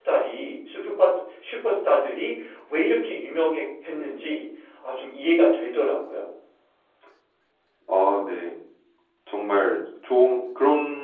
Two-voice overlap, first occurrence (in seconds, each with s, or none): none